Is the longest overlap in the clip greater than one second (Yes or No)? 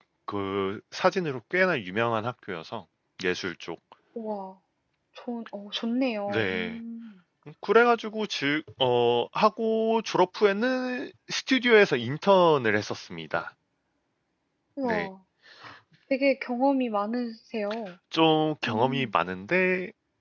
No